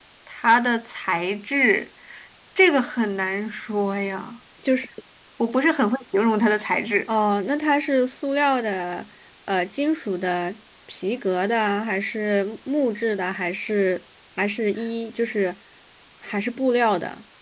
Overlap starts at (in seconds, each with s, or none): none